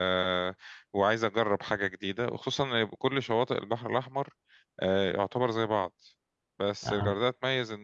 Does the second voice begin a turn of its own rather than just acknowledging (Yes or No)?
No